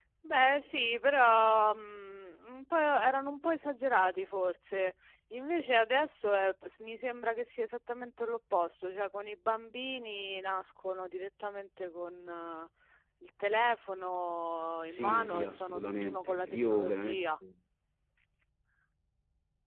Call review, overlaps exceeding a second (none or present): present